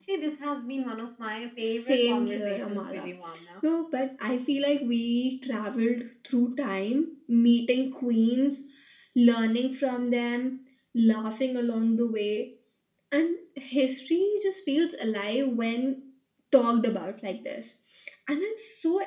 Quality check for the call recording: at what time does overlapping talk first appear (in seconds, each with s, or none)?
1.6 s